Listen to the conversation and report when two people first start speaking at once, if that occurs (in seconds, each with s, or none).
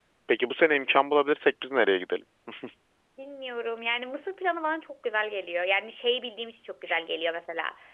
none